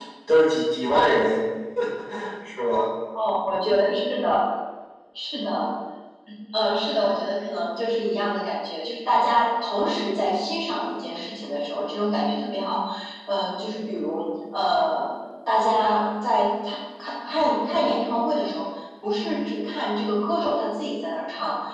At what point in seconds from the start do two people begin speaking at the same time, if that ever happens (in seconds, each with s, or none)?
none